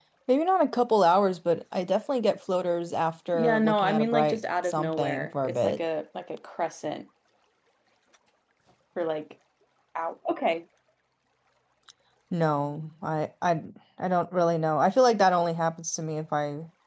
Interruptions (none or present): present